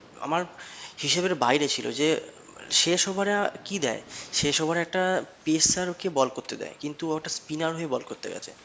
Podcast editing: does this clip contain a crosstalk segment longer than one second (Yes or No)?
No